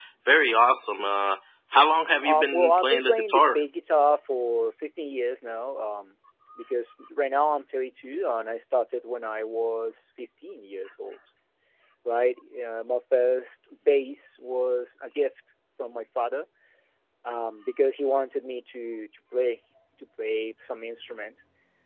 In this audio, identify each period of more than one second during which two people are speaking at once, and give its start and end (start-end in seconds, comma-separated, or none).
2.2-3.6